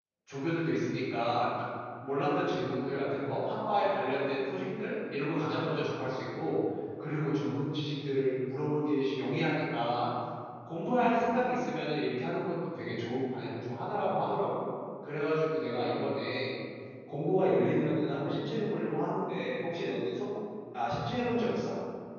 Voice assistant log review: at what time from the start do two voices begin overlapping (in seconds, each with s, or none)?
none